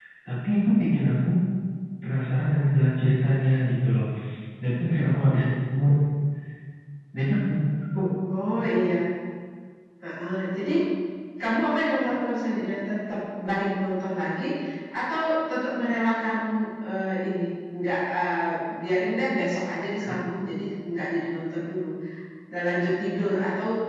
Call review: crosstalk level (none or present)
none